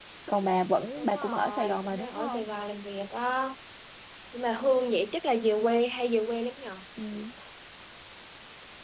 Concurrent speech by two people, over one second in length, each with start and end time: 1.0-2.4

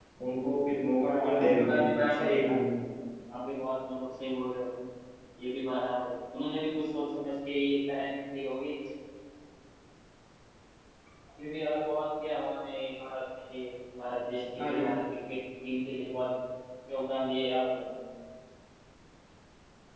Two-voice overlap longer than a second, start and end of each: 1.0-2.5

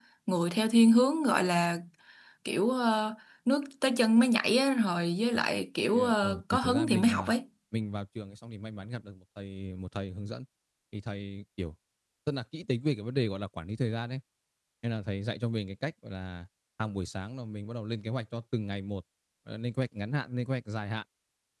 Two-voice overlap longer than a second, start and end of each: 5.9-7.3

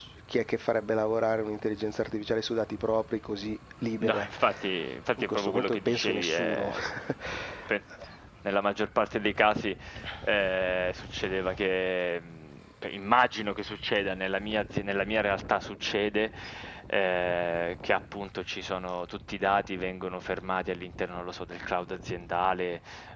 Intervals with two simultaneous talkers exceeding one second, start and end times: 5.3-6.7

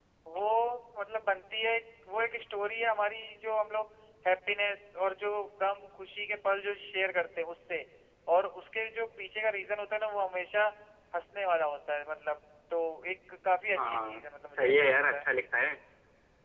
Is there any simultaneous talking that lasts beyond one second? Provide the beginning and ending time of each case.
13.8-15.2

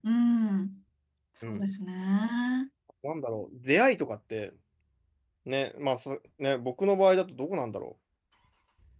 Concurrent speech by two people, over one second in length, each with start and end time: none

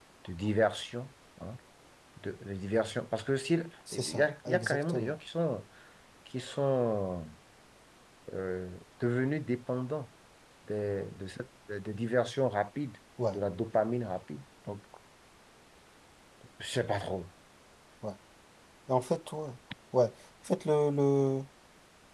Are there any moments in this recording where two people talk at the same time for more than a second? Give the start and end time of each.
3.9-5.1

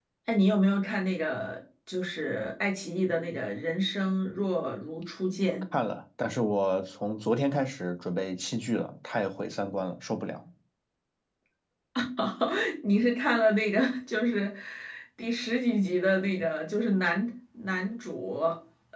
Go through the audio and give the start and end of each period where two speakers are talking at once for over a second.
none

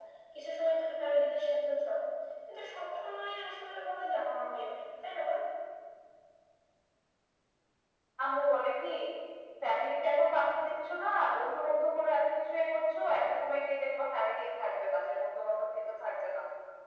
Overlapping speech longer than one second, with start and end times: none

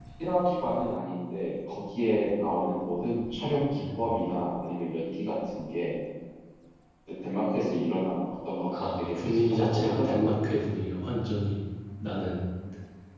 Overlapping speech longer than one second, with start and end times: 8.8-10.3

